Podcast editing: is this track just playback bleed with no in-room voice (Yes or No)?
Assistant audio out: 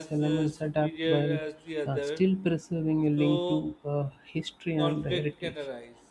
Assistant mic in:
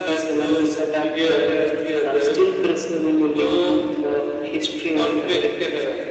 Yes